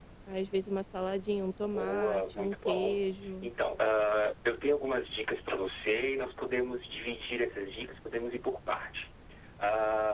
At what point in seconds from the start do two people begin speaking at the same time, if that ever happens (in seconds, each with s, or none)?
1.7 s